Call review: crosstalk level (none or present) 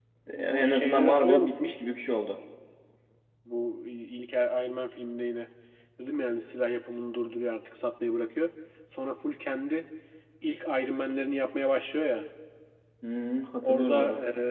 present